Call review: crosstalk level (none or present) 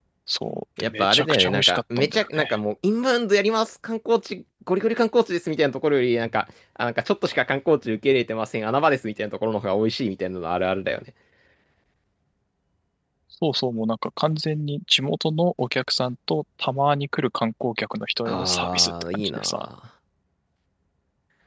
present